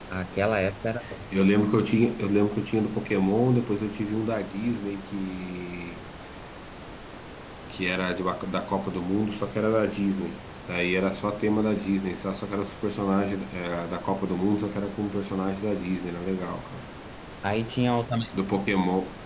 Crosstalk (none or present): none